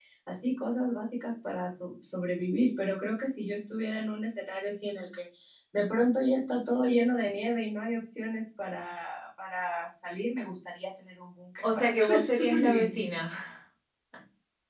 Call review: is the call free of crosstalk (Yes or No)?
No